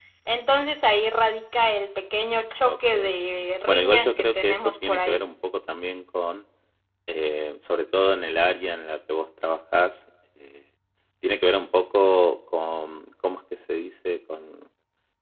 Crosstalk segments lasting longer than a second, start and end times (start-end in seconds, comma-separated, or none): 3.7-5.2